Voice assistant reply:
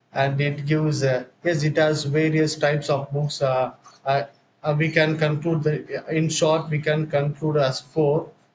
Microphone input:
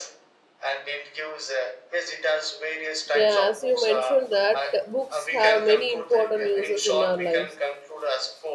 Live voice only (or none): Yeah, as you mentioned that books have many important uses in our lives.